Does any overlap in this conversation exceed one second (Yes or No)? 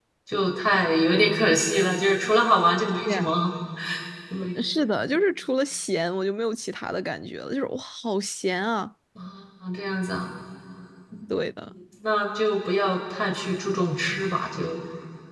No